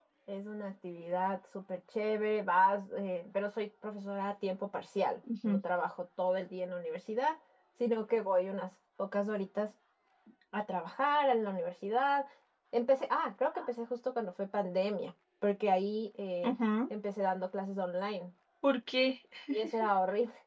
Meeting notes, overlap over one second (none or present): none